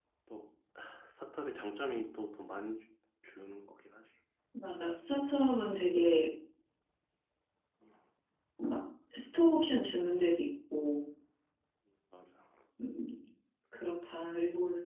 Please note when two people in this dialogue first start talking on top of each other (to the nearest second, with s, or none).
none